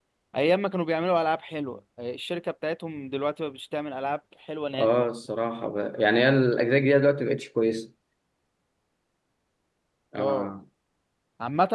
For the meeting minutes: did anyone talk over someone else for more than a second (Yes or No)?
No